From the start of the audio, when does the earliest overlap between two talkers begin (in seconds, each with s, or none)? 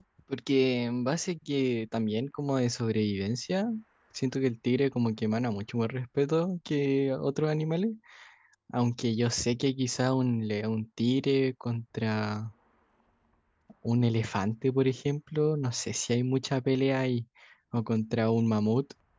none